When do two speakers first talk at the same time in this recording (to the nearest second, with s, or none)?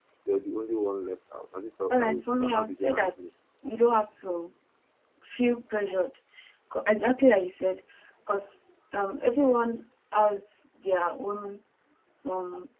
2 s